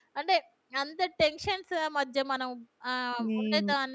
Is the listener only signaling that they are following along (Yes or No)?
Yes